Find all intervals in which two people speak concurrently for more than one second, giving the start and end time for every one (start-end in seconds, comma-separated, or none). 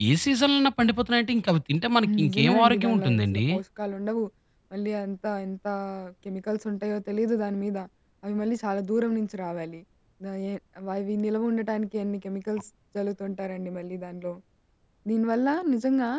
2.0-3.4